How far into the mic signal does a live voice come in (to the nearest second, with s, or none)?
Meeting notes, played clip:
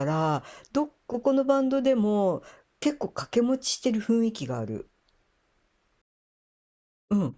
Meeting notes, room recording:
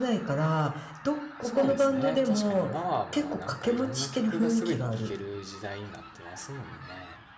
1 s